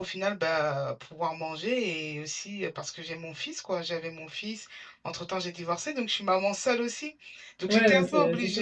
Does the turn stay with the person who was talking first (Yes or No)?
No